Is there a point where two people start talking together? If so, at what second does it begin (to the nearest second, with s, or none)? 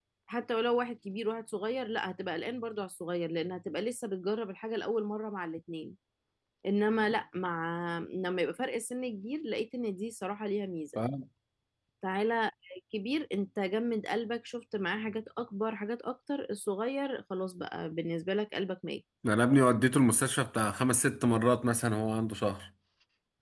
none